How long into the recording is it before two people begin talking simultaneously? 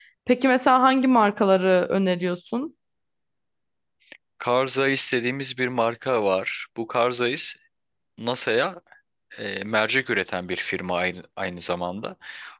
none

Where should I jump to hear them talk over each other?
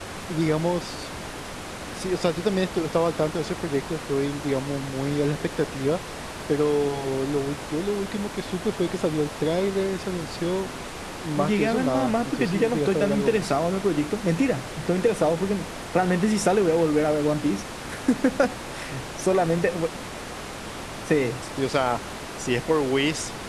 11 s

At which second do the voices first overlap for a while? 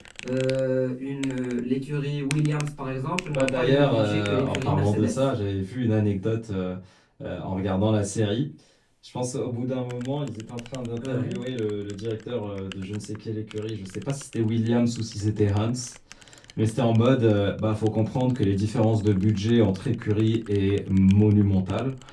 3 s

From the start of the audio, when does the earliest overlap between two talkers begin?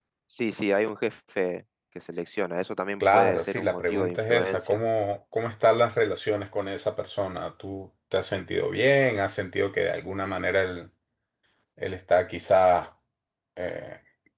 3 s

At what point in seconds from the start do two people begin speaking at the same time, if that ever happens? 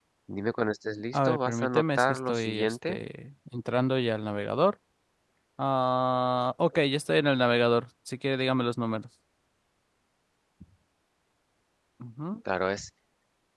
1 s

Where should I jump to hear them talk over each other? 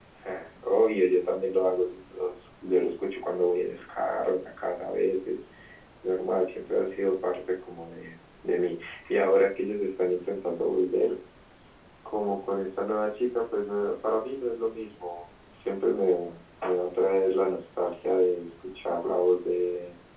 none

